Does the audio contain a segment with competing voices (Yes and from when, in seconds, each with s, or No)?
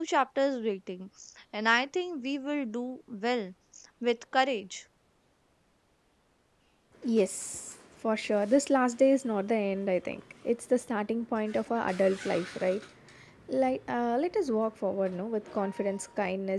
No